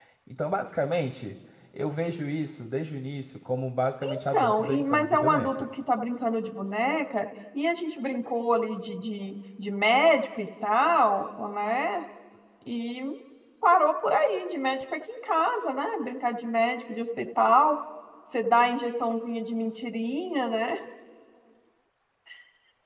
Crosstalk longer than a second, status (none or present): present